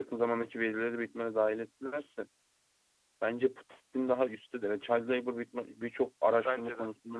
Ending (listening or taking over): listening